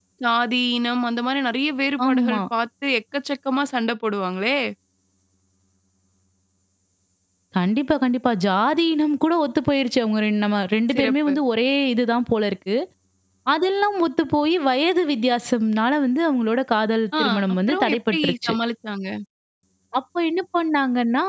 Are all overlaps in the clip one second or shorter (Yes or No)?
No